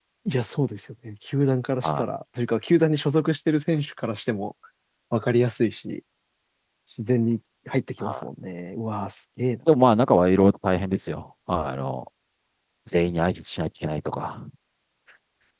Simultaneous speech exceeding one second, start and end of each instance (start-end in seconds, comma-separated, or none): none